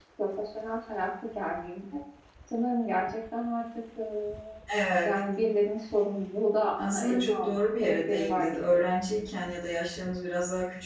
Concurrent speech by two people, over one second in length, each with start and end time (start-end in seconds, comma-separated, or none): 6.8-8.9